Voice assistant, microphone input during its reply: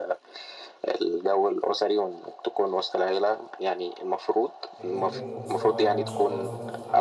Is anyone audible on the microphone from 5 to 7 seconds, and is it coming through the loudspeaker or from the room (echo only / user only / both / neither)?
both